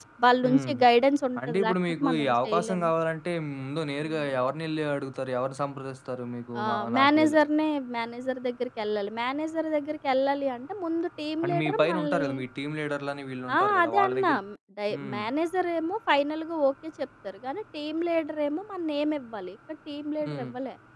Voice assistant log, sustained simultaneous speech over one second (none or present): present